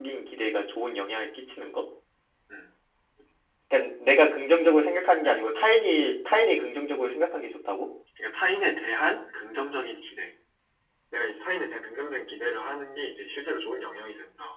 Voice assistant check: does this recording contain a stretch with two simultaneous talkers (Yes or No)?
No